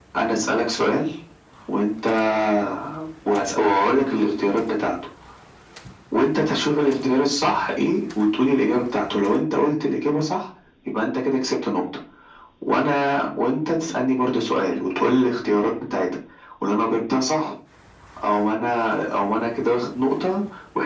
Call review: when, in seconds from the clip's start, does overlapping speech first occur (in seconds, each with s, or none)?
none